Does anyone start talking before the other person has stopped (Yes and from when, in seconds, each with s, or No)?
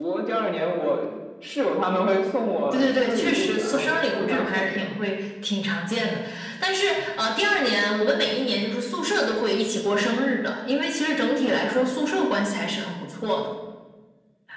Yes, from 2.7 s